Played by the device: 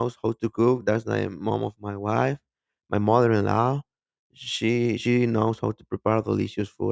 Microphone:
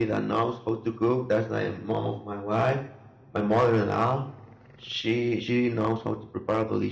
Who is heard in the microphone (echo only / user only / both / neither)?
echo only